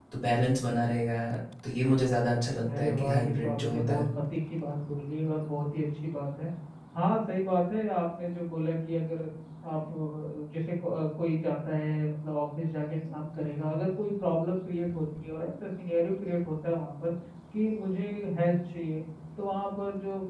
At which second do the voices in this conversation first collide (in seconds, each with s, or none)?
2.6 s